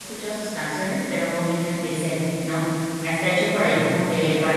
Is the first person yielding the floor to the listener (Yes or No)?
No